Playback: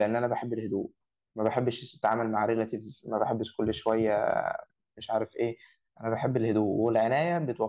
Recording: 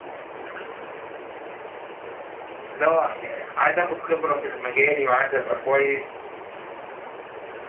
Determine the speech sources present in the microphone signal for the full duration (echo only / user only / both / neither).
user only